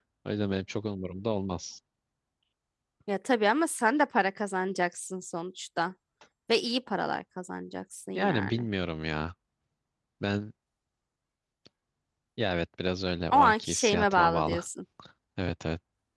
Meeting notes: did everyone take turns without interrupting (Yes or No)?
No